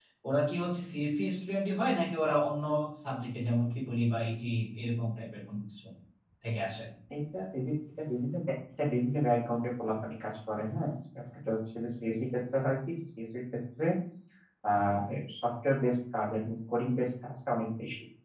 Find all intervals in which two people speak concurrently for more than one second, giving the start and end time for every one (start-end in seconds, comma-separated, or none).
none